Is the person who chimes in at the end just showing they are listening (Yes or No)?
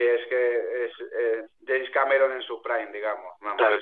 Yes